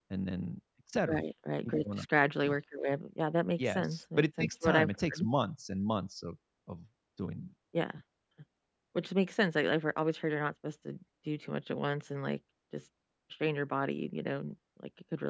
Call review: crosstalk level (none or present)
present